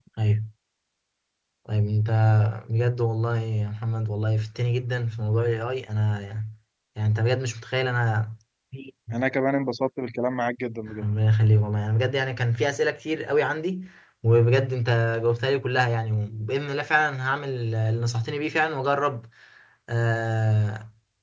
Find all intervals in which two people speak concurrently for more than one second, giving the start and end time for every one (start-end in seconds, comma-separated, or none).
none